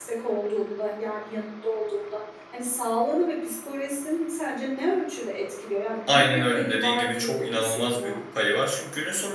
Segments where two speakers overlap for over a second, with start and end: 6.1-8.2

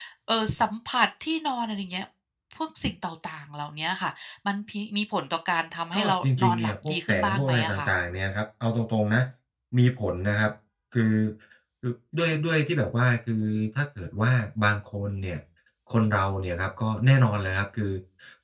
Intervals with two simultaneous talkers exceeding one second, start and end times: 5.9-7.9

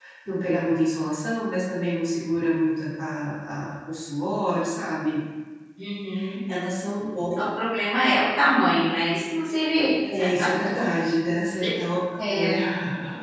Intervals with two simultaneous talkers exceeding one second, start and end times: none

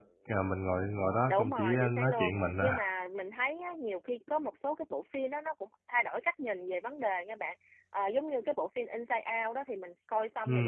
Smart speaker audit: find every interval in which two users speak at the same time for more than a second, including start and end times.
1.3-2.8

